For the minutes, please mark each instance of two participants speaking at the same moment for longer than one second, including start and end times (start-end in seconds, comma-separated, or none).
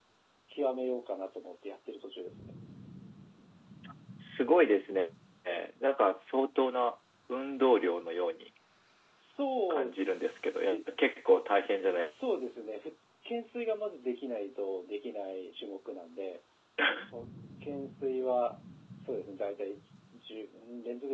none